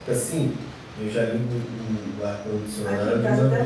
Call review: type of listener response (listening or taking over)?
taking over